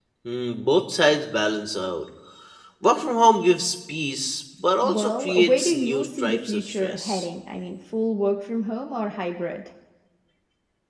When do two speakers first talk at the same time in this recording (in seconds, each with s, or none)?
4.8 s